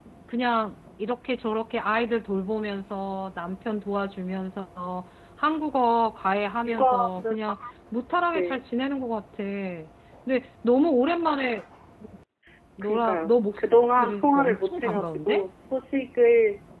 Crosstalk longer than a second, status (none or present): present